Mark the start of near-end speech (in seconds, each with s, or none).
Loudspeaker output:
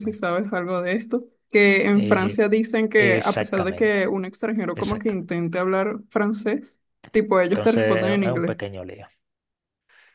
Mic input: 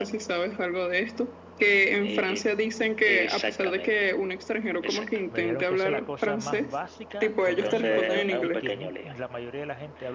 5.3 s